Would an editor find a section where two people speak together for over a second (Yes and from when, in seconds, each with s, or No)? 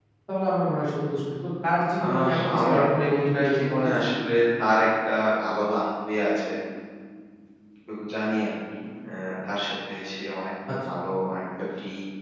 Yes, from 2.0 s